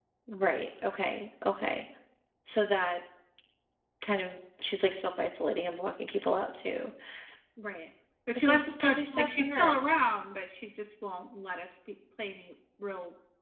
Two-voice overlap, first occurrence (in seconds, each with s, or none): 8.3 s